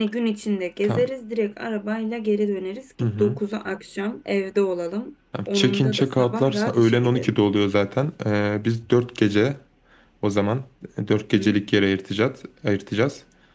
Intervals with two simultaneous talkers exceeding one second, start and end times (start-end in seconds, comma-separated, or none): 5.5-7.4